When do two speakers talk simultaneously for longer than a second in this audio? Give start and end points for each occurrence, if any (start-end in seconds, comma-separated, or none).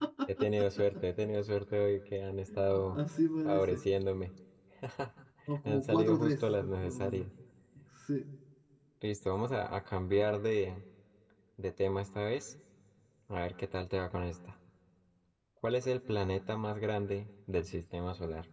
5.7-7.3